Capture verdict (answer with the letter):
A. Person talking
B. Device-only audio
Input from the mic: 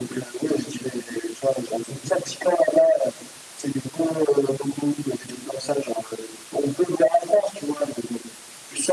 B